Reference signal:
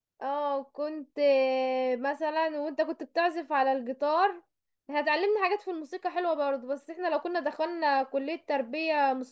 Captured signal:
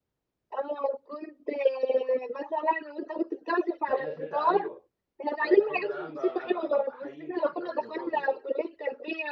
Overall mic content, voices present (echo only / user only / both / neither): both